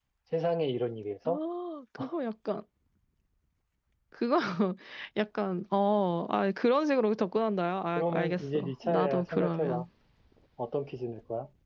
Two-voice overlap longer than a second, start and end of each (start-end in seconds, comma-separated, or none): 8.0-9.8